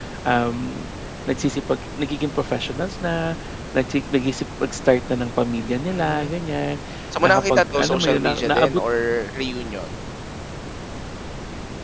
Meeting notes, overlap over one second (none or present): present